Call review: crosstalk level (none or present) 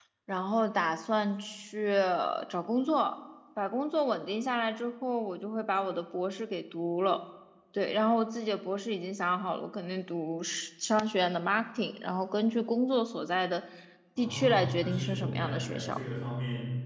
present